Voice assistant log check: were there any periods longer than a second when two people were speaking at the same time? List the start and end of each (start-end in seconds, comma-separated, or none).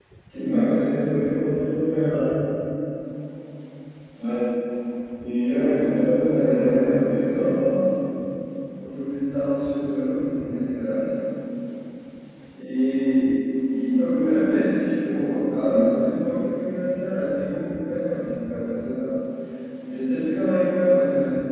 6.3-7.5